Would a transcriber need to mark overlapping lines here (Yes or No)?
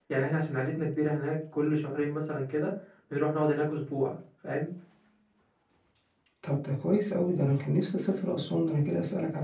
No